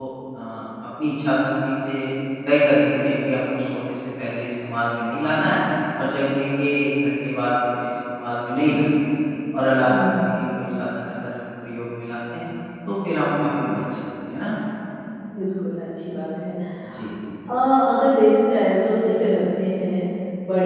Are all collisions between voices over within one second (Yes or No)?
Yes